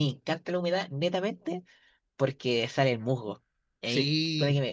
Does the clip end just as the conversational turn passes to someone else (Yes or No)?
No